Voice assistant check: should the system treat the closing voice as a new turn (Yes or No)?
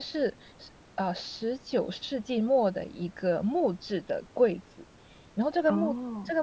No